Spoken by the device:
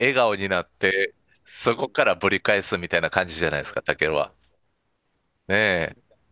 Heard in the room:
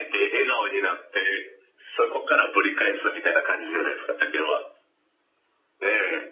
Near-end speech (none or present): none